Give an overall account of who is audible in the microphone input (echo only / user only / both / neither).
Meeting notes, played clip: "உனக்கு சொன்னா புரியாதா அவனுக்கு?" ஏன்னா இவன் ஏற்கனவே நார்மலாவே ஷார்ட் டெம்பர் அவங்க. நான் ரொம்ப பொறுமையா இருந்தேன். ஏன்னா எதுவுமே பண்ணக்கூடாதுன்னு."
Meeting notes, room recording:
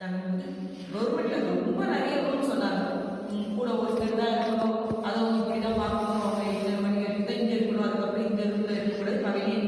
user only